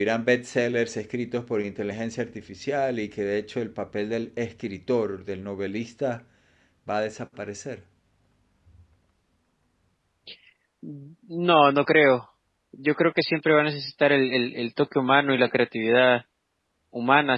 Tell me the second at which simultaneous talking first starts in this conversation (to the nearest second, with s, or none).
none